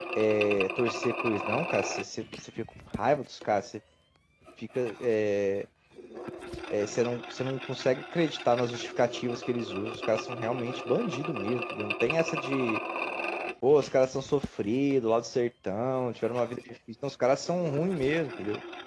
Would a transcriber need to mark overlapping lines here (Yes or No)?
No